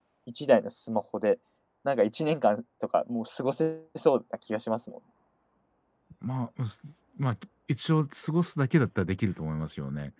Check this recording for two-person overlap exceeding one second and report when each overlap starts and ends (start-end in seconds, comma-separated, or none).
none